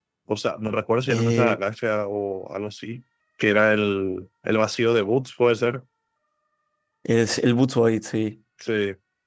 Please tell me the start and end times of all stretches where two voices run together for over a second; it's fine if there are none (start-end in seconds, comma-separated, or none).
none